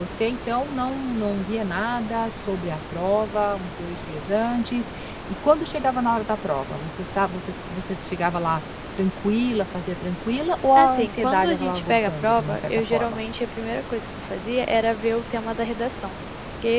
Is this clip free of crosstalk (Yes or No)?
No